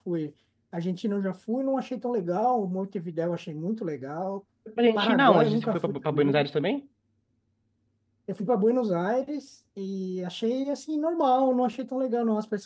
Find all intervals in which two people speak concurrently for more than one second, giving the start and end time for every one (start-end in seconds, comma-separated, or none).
5.0-6.4